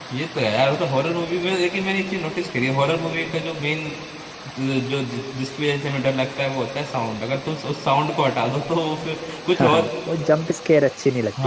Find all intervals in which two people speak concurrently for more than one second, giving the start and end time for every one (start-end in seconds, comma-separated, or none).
none